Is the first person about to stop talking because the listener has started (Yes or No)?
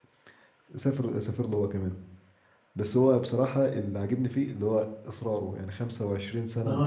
Yes